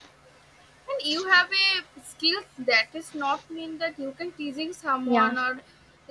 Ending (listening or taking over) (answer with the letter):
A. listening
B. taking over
A